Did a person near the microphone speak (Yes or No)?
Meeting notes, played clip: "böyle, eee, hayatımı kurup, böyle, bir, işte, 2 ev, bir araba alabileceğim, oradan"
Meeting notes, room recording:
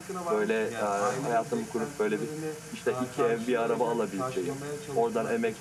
Yes